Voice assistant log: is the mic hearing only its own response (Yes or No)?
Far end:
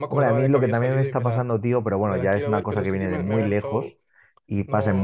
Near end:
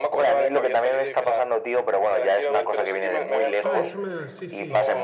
No